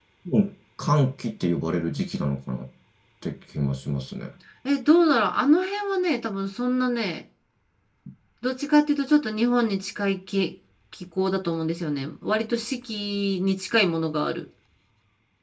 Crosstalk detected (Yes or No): No